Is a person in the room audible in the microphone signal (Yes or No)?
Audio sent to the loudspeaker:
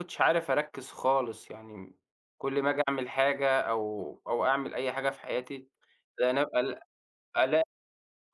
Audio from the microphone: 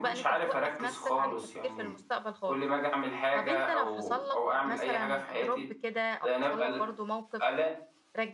Yes